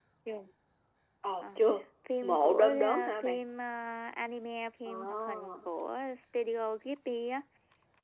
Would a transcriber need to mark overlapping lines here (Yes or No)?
Yes